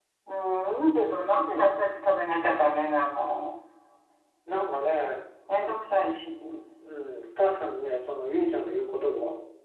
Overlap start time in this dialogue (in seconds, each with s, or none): none